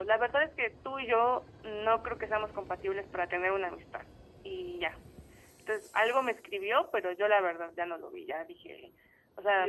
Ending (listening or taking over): taking over